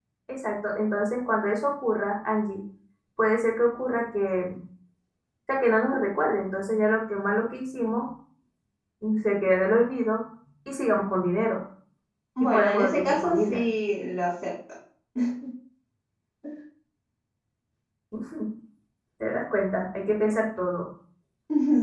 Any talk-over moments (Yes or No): Yes